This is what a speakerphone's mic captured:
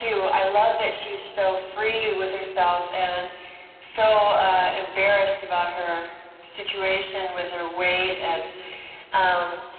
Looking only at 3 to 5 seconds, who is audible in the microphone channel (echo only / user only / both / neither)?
echo only